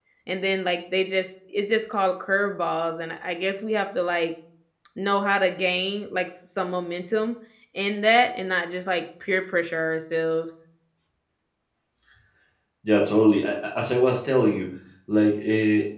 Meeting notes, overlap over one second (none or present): none